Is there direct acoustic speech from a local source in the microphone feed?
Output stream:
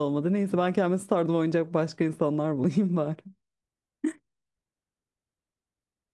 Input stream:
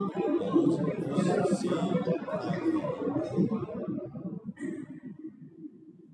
Yes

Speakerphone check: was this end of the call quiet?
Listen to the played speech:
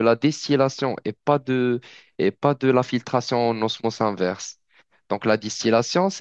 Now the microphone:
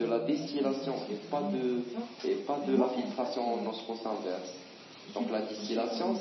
No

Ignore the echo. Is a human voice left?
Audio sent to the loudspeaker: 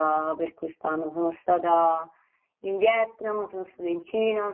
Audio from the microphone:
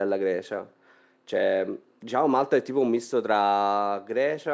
Yes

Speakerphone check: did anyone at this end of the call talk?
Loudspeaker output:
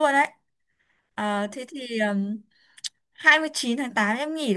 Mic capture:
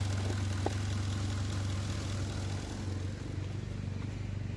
No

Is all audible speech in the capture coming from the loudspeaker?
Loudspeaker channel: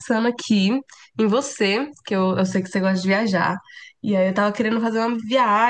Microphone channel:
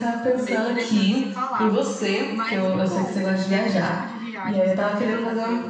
No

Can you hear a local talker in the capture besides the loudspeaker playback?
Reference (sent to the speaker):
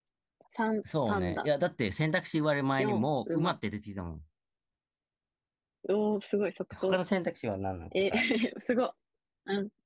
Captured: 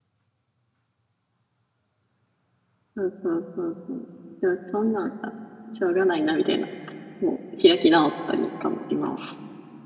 Yes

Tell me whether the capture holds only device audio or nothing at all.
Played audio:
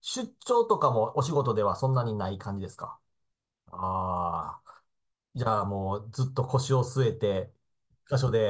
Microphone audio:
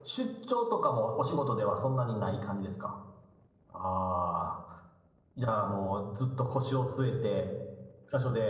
Yes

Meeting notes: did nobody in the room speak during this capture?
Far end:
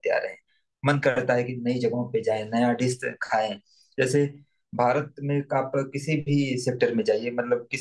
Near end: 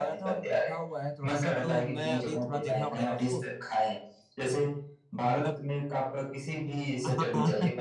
No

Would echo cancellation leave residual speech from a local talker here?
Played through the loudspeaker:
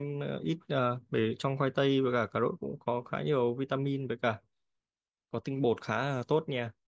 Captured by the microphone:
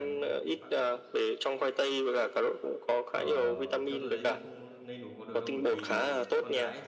Yes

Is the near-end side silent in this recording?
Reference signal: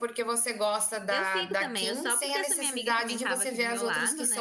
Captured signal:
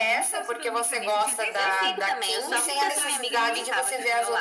No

